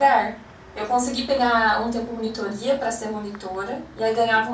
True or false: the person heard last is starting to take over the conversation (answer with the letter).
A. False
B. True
A